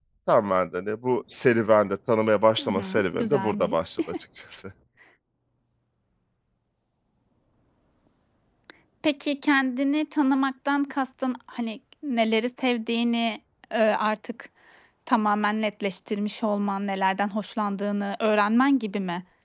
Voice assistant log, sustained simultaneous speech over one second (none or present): present